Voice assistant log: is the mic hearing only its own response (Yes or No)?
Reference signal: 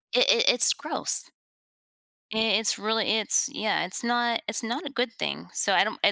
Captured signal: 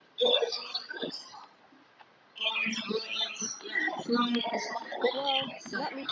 No